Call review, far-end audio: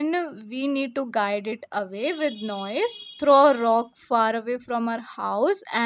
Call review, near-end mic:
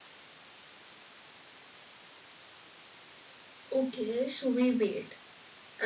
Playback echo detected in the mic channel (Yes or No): No